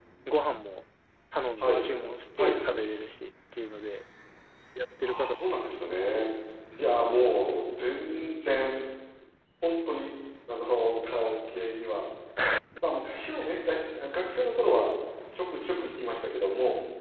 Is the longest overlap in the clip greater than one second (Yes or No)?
Yes